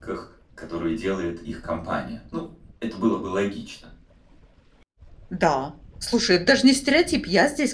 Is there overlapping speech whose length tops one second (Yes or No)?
No